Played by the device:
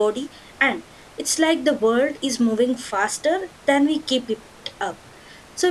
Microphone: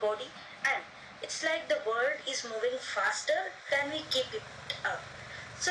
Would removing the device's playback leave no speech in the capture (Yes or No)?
Yes